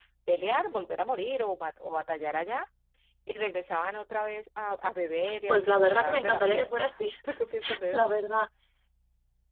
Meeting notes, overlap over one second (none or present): present